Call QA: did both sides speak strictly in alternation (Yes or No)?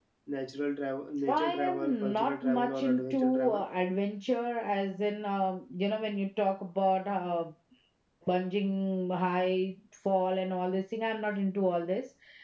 No